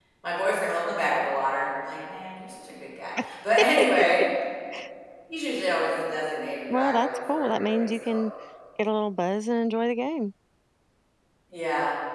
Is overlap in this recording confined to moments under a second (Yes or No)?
No